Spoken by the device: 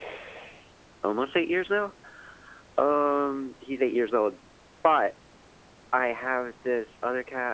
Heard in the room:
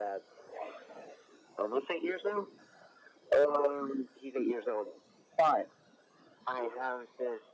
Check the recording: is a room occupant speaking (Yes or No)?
No